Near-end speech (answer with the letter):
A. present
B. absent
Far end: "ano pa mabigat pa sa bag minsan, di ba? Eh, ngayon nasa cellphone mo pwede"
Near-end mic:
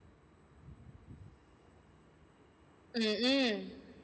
A